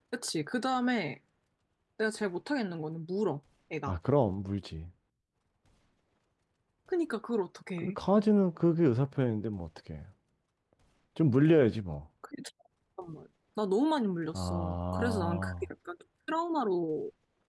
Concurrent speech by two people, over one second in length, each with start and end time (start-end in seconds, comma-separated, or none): 14.3-15.7